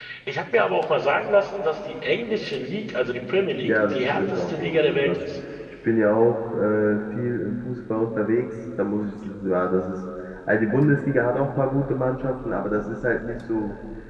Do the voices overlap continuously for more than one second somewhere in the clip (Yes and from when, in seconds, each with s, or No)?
Yes, from 3.6 s